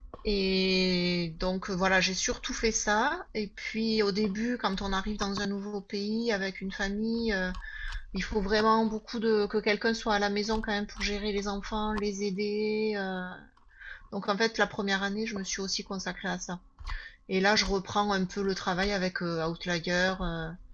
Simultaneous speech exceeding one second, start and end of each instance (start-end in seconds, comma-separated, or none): none